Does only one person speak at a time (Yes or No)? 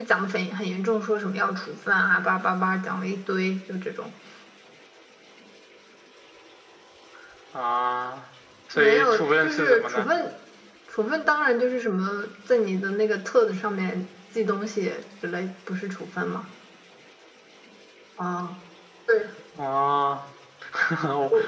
No